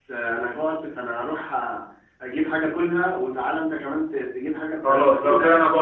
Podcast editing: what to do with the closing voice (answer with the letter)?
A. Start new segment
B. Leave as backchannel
A